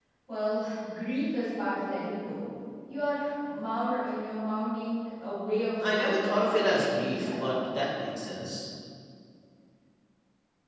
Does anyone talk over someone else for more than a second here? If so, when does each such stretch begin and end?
5.8-7.6

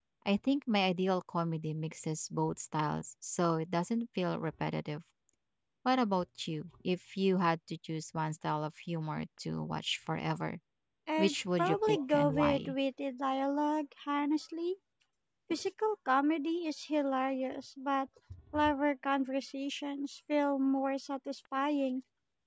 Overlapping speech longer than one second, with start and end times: 11.2-12.7

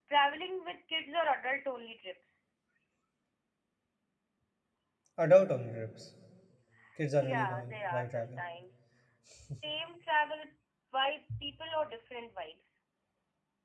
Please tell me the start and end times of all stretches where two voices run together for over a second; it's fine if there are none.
7.2-8.4

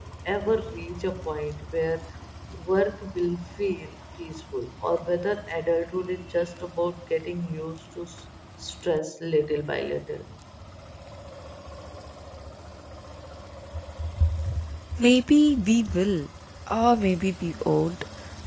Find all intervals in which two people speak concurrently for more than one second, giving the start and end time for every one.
none

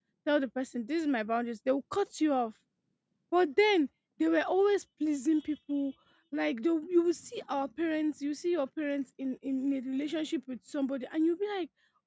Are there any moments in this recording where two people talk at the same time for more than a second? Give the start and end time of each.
none

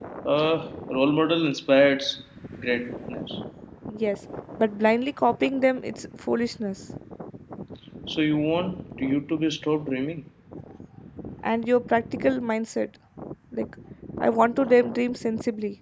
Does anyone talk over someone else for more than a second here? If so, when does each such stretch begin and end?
none

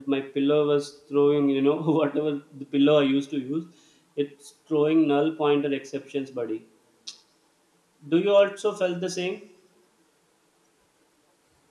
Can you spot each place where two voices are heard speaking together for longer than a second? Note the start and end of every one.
none

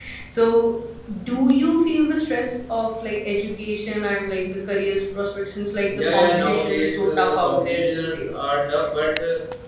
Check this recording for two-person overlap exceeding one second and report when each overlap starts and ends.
6.0-8.4

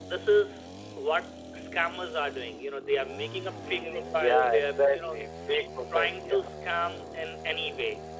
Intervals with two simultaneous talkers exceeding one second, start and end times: 3.7-5.2

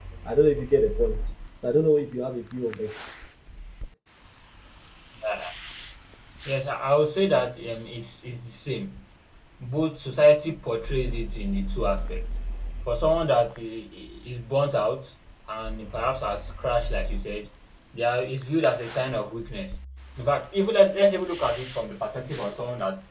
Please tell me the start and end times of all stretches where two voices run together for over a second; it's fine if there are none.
none

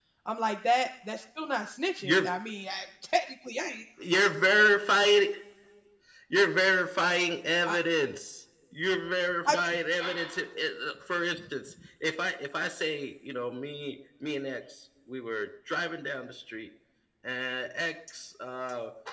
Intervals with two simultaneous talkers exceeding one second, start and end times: none

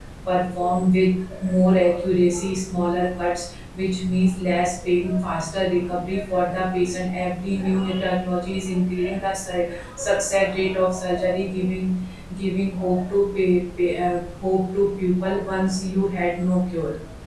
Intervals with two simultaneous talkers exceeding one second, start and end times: none

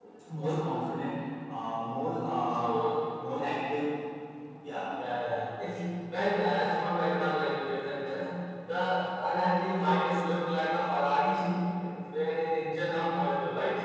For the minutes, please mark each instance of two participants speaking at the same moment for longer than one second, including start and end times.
none

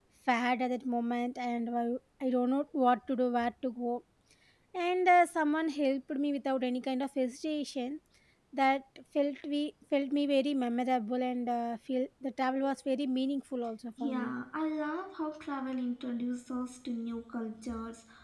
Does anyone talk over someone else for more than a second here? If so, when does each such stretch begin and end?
none

